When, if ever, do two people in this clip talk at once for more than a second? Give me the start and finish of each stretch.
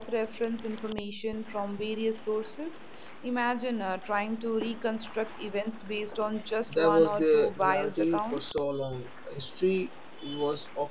6.7-8.6

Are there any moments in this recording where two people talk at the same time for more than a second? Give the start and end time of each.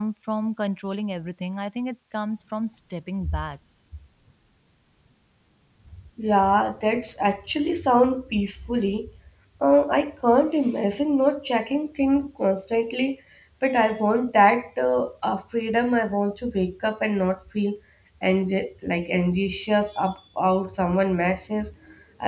none

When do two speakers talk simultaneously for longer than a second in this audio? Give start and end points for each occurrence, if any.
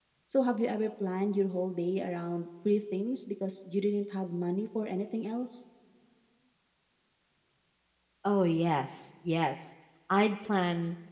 none

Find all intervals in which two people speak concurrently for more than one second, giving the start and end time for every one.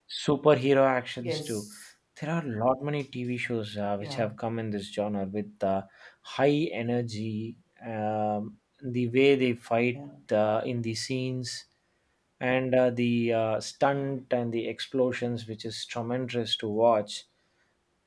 none

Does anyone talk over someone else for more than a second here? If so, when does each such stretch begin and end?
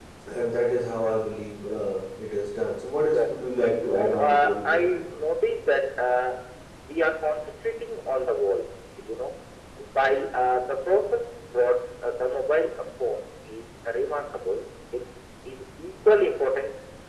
3.0-5.1

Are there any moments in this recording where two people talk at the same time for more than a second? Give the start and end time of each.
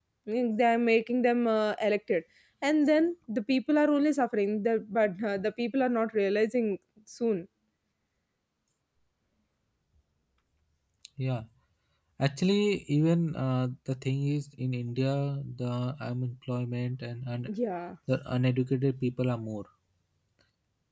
none

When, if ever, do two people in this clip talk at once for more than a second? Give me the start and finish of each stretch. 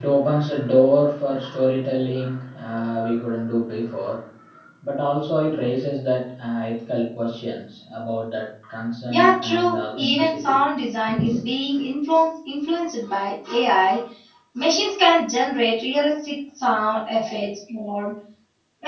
9.1-10.6

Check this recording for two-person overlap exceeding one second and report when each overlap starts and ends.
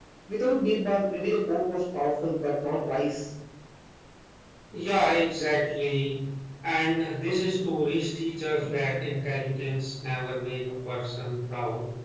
none

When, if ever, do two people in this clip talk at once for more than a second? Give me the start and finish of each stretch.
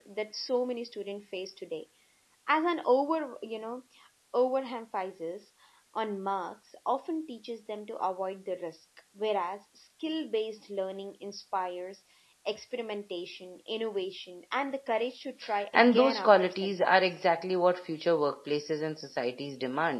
15.7-17.2

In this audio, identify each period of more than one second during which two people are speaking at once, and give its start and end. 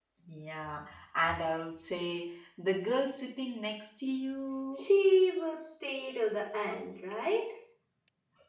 none

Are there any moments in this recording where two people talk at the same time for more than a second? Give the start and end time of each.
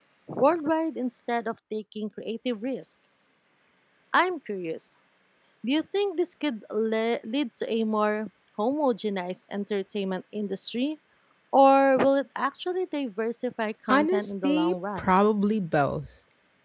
13.9-15.1

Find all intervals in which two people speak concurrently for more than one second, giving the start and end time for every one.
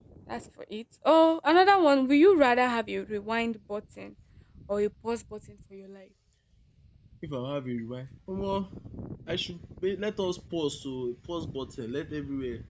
none

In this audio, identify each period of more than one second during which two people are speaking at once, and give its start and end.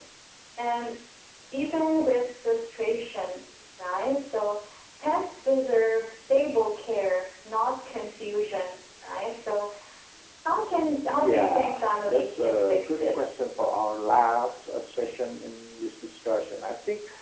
11.2-13.4

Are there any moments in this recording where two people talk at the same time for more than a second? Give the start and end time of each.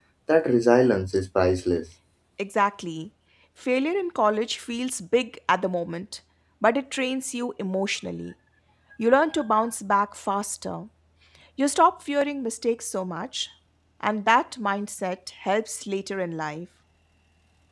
none

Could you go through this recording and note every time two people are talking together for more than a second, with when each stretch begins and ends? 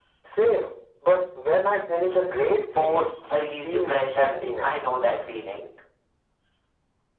2.8-4.8

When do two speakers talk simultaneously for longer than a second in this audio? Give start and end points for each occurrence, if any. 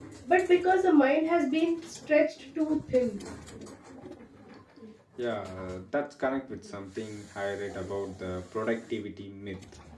none

